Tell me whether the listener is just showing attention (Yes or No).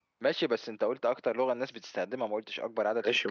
No